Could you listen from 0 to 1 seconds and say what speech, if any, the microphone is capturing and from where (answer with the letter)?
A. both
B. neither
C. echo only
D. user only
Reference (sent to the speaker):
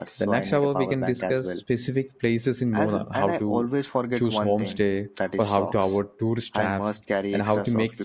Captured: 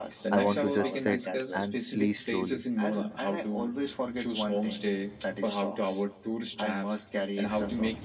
A